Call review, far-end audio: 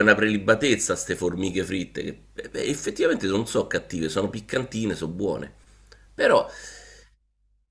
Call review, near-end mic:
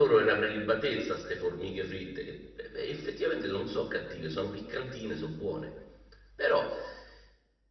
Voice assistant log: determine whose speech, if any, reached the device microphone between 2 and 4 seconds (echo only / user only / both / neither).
echo only